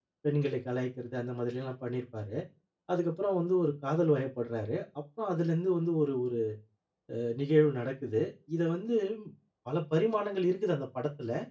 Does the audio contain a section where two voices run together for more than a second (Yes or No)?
No